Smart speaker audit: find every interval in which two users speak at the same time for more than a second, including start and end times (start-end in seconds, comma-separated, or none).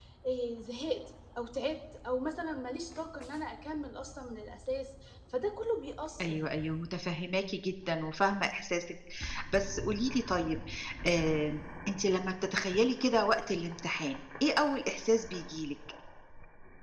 none